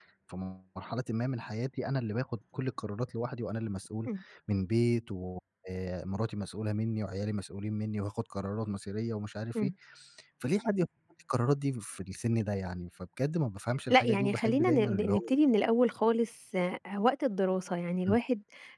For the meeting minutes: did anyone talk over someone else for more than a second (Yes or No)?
Yes